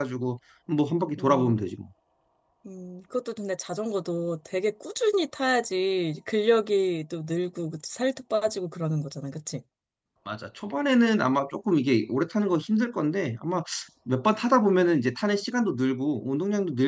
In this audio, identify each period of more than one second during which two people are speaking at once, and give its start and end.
none

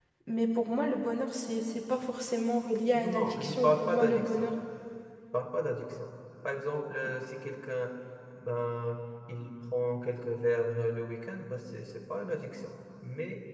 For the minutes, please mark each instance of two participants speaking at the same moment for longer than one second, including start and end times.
2.9-4.5

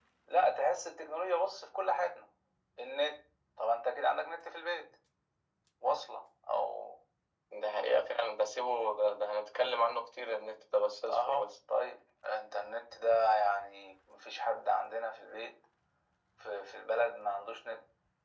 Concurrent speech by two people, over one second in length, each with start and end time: none

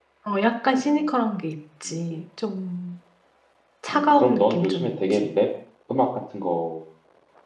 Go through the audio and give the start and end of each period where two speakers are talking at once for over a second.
3.9-5.3

